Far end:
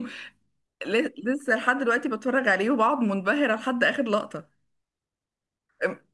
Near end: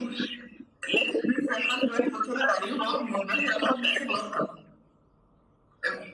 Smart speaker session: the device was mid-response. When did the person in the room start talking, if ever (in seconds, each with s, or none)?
none